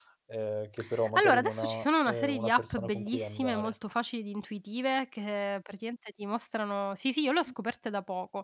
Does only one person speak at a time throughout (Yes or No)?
No